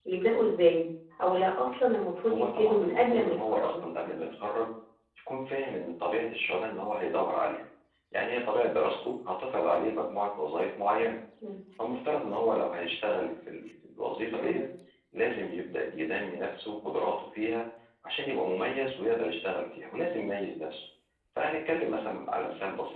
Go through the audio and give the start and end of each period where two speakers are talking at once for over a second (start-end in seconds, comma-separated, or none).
2.2-3.8